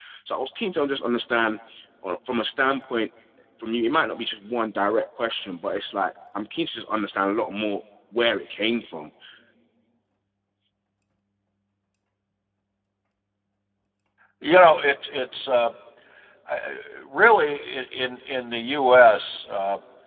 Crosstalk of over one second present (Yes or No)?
No